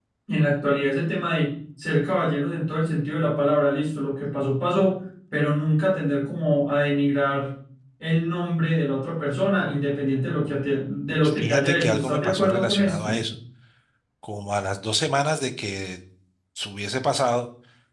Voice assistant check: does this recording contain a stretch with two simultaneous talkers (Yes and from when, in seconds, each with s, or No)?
Yes, from 11.1 s